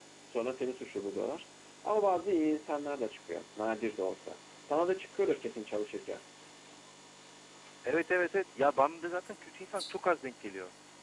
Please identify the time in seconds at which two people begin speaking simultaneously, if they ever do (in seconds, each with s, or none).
none